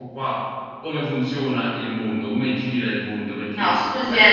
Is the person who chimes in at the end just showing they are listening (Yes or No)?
No